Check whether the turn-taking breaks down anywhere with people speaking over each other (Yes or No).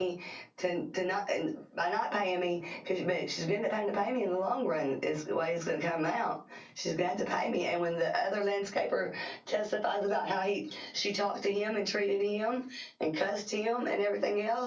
No